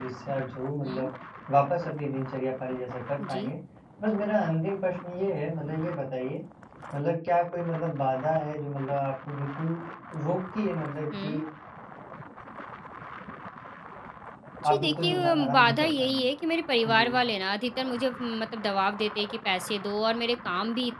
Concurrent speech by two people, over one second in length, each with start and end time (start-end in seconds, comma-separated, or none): 14.7-16.2